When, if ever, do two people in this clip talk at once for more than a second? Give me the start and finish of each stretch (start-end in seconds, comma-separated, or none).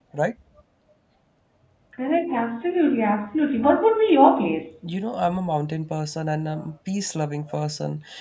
none